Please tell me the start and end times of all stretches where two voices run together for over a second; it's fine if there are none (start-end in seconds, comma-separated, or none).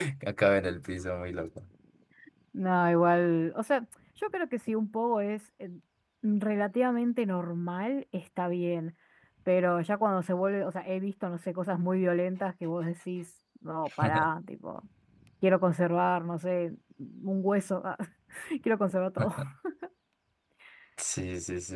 none